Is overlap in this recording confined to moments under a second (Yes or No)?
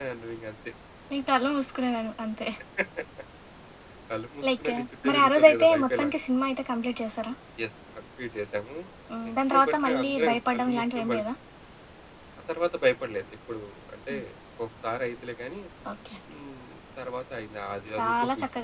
No